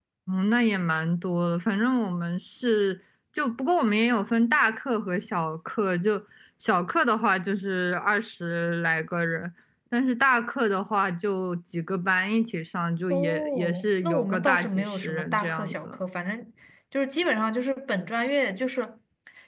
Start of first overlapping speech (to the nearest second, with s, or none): 13 s